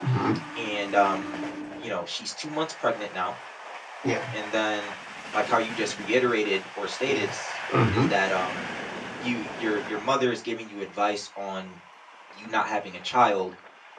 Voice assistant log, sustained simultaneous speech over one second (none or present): none